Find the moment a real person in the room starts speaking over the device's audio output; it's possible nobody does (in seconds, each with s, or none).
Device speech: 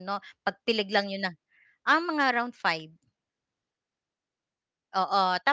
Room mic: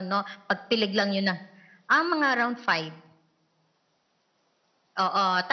none